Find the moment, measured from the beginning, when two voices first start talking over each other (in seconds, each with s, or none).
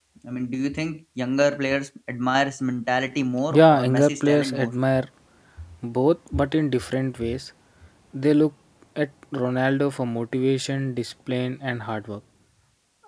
3.5 s